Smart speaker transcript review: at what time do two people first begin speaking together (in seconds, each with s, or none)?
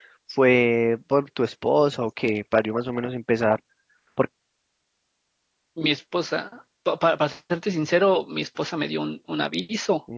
none